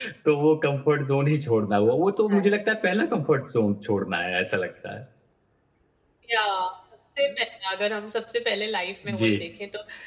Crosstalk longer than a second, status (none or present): none